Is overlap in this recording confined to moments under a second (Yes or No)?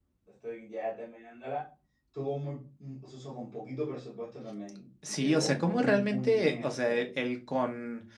No